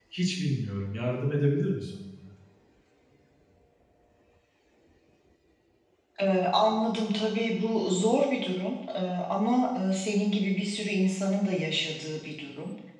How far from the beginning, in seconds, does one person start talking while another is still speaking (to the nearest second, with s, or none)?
none